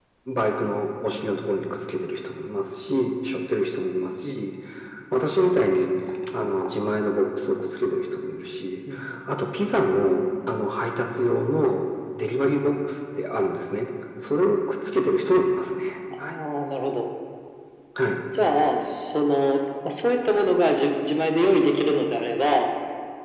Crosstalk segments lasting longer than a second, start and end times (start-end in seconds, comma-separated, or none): none